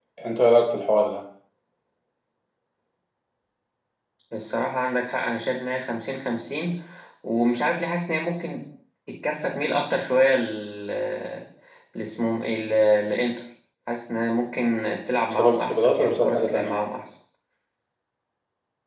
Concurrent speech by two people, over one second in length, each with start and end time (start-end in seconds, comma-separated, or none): 15.3-16.8